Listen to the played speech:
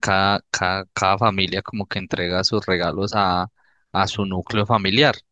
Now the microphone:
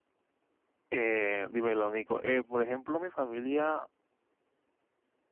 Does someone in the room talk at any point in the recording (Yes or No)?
Yes